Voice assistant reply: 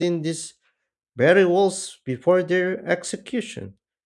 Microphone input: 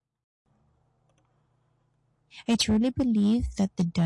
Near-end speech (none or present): present